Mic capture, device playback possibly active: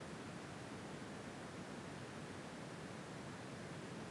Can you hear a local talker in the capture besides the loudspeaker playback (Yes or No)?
No